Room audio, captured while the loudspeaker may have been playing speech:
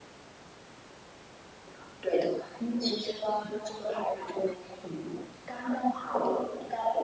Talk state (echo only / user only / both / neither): echo only